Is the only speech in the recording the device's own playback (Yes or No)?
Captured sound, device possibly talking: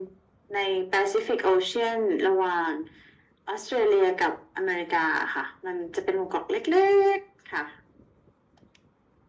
Yes